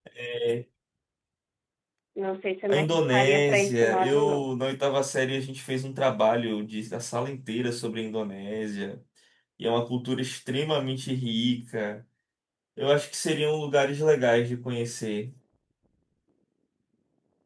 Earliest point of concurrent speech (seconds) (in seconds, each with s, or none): 2.7 s